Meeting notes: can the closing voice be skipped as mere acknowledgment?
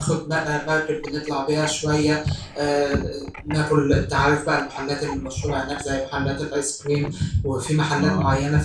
Yes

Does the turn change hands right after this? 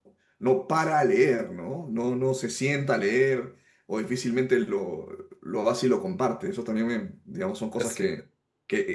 No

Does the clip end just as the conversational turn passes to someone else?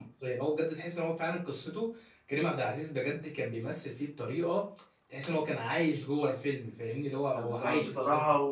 Yes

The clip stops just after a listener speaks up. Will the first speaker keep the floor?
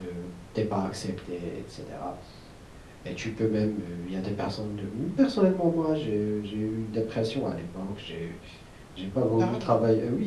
Yes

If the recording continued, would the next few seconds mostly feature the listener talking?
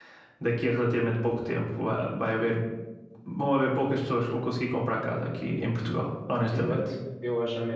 Yes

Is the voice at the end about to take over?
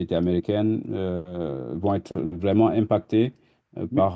Yes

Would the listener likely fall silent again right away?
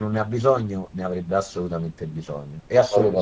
No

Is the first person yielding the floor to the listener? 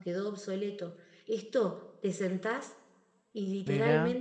No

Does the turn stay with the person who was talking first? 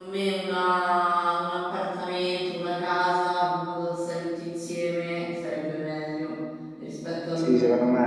No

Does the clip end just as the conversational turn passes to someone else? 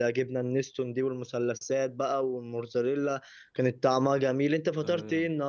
Yes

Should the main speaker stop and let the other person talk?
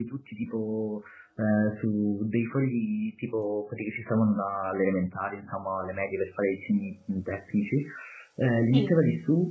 No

